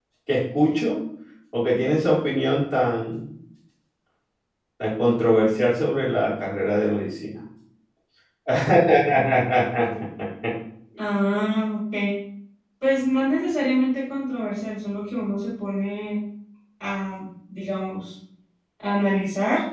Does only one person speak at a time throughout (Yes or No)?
Yes